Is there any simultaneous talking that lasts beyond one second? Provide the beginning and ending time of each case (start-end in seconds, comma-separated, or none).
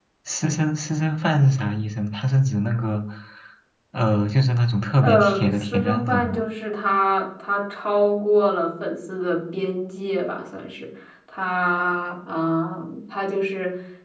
5.0-6.5